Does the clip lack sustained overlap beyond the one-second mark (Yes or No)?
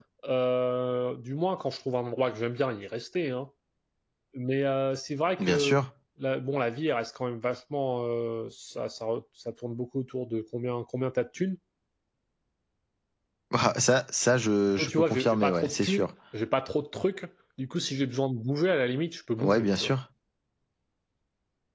No